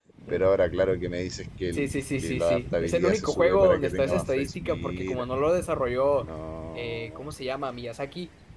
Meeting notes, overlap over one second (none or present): present